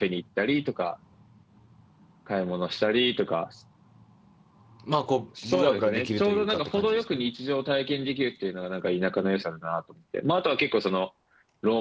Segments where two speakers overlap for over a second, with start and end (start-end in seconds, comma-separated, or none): 5.4-7.0